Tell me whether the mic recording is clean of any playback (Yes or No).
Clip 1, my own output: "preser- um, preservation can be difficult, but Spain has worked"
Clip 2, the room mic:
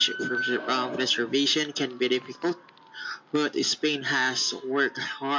No